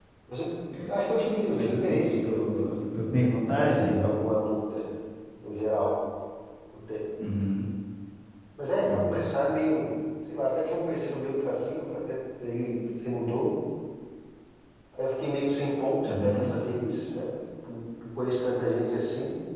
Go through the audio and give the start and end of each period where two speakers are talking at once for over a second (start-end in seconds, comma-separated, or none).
1.5-4.1